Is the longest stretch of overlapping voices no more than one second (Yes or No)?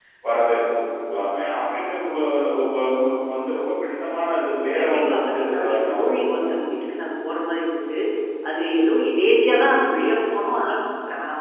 No